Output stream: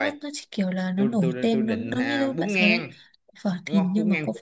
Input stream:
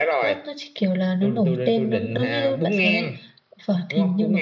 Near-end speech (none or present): none